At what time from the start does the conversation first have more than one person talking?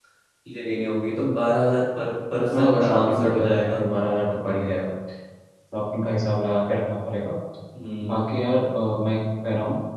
2.5 s

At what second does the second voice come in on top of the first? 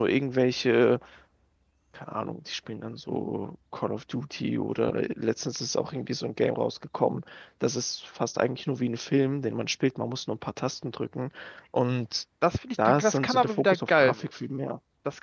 12.8 s

